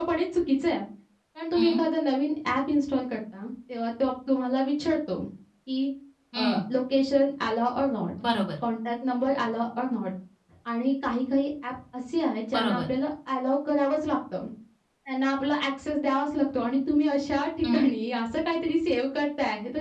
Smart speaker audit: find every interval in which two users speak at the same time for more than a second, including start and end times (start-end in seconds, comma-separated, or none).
none